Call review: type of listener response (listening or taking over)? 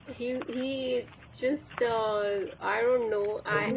taking over